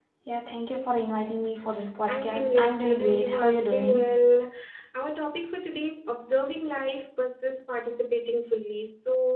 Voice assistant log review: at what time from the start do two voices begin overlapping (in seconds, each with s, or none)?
2.1 s